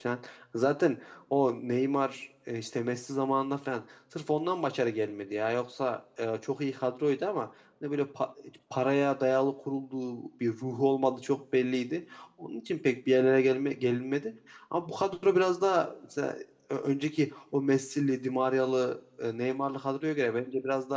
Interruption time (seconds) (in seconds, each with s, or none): none